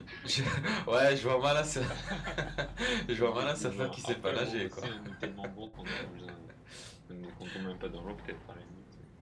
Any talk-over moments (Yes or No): Yes